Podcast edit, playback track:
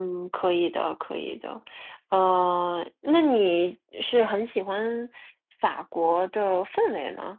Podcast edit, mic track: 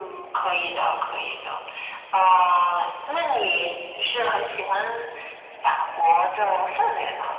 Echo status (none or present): present